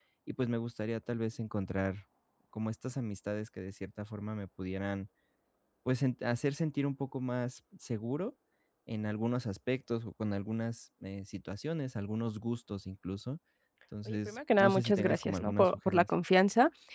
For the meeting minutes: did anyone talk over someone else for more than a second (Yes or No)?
Yes